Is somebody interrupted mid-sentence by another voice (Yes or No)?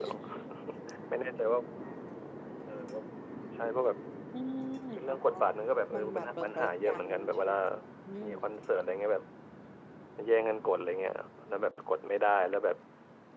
Yes